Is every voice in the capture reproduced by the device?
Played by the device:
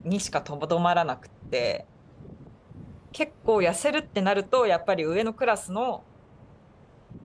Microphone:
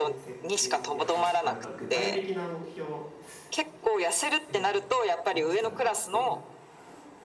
No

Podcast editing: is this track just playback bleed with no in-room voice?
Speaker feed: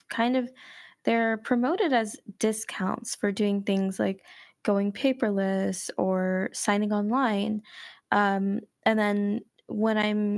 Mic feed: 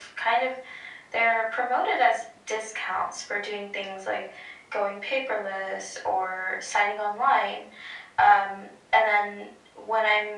Yes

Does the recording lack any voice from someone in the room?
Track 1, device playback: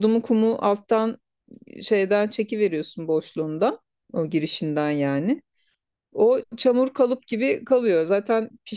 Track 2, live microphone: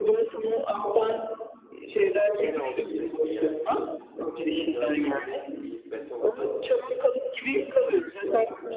No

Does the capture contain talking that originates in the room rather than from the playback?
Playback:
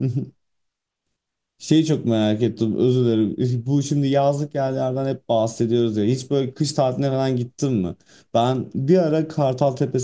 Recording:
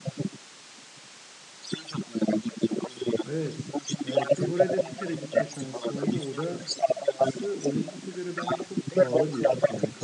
Yes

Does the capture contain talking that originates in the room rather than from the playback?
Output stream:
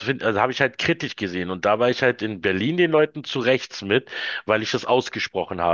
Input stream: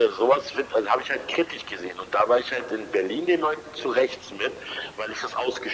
No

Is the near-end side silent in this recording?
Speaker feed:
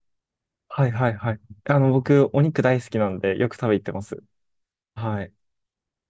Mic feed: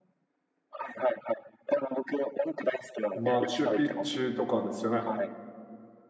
No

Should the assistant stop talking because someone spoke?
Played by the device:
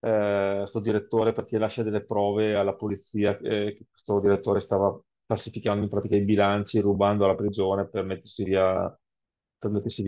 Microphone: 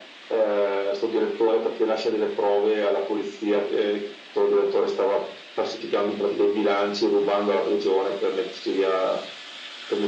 No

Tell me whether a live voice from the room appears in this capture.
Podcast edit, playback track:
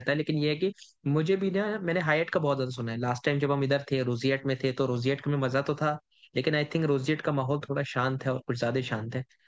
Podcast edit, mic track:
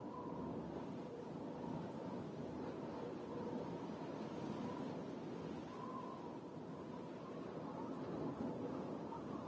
No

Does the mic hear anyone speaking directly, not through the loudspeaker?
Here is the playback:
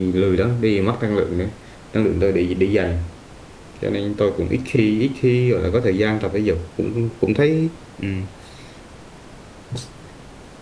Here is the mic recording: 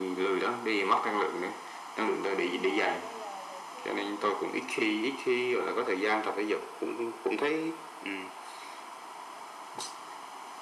Yes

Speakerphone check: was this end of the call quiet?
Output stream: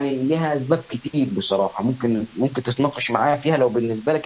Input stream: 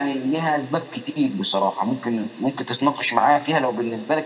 Yes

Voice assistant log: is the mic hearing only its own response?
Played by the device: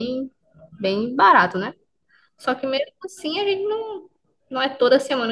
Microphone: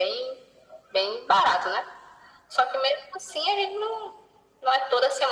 Yes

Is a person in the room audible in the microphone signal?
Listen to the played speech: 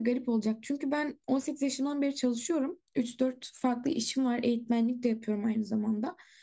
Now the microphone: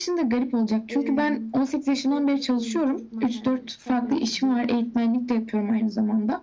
Yes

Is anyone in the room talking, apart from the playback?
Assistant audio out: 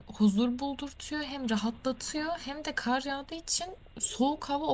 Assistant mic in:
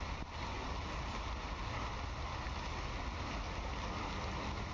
No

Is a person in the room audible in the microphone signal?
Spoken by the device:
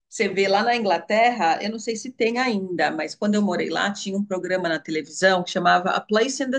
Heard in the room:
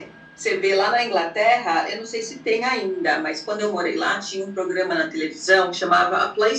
No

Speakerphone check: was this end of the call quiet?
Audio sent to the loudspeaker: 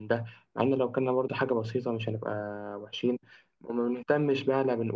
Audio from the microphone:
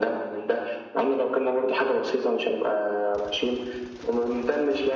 Yes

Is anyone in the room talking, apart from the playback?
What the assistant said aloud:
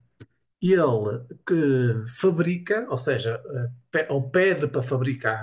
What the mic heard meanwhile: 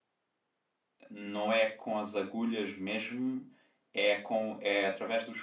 Yes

